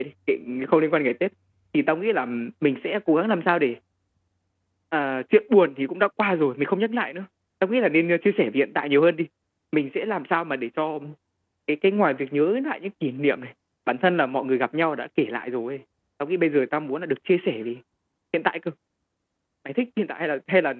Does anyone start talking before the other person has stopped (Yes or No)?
No